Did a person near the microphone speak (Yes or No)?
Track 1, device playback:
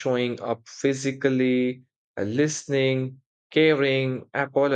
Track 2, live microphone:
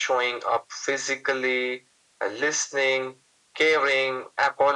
No